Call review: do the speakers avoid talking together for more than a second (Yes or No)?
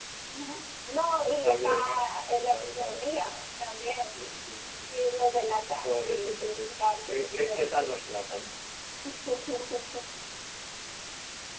No